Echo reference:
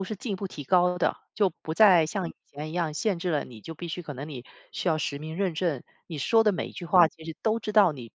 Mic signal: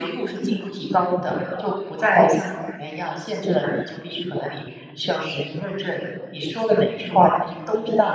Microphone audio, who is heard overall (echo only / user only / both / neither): echo only